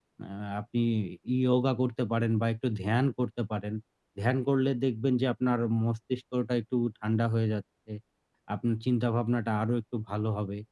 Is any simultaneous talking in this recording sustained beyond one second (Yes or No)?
No